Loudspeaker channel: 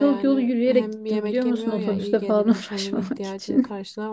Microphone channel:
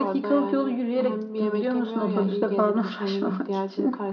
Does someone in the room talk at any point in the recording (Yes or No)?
No